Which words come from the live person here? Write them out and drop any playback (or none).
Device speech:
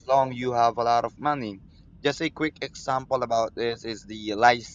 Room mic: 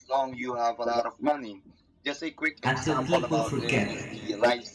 until people forget